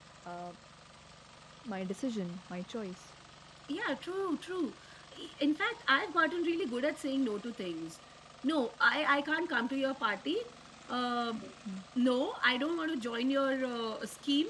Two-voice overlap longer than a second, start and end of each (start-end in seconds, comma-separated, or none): none